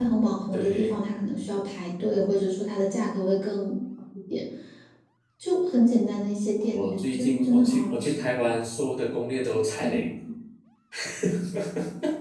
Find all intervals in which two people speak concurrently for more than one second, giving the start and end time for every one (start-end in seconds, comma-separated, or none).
6.7-8.2